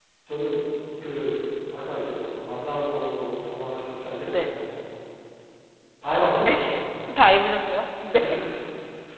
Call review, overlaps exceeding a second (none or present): none